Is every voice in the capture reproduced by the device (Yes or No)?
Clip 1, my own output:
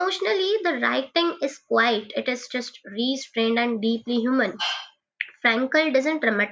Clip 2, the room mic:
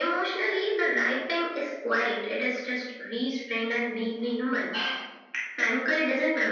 Yes